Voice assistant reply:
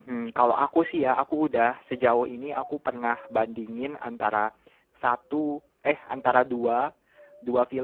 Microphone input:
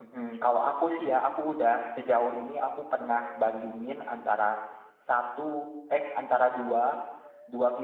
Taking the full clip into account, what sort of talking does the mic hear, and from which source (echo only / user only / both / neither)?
echo only